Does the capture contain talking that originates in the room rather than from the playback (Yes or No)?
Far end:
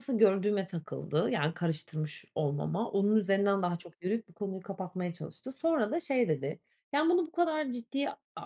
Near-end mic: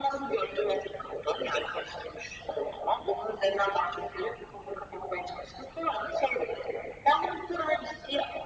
No